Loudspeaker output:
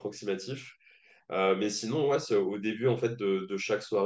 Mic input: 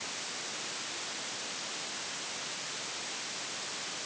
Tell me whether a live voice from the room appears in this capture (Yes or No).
No